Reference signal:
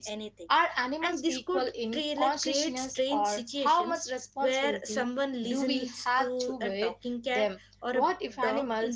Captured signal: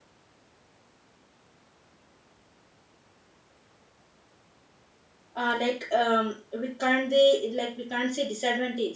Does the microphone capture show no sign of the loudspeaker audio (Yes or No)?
Yes